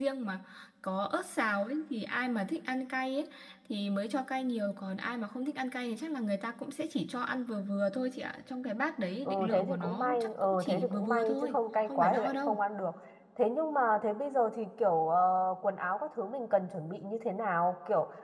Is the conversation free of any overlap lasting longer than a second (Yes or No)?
No